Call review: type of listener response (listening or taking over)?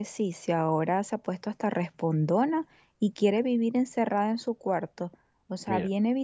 listening